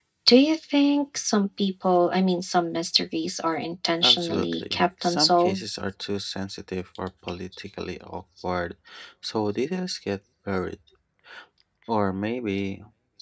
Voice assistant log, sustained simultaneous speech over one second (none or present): present